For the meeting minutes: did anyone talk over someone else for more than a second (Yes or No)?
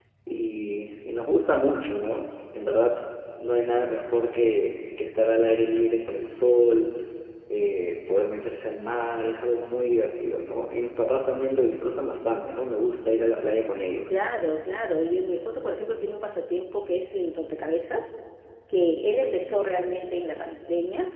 No